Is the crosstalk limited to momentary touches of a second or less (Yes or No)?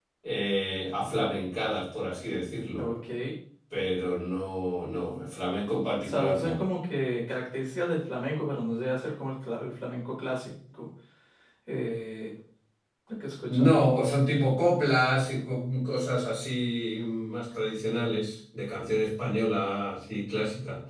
Yes